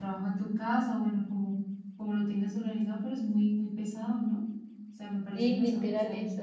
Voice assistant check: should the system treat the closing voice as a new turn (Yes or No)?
Yes